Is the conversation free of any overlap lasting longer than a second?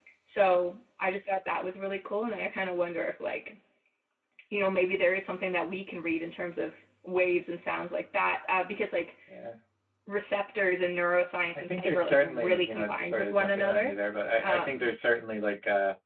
No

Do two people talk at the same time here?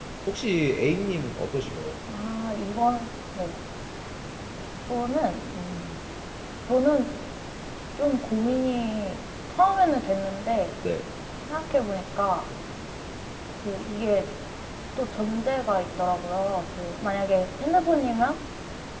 No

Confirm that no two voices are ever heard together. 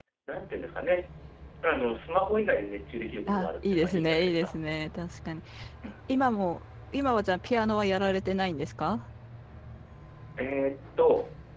No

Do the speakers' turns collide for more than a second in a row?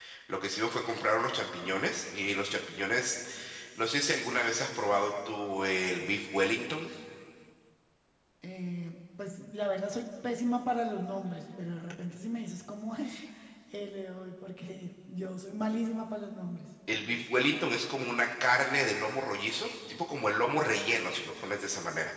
No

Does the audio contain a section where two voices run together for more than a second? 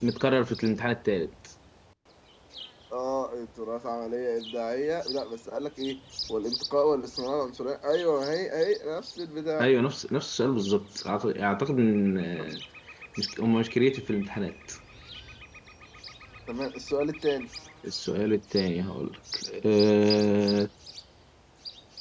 No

